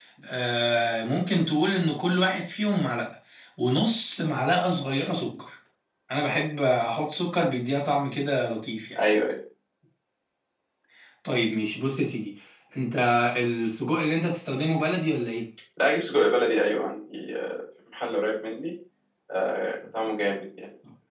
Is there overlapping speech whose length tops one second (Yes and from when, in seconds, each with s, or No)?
No